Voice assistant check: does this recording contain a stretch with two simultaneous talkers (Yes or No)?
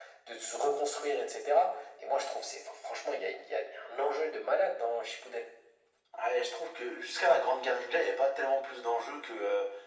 No